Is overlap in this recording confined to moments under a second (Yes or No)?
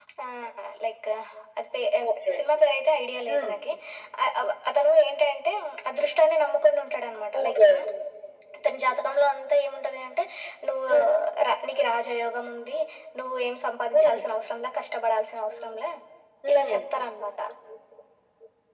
Yes